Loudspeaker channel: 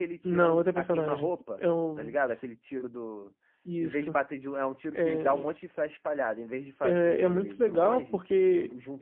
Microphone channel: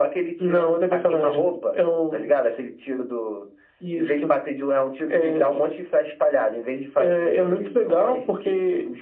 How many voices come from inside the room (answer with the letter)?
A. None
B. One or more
A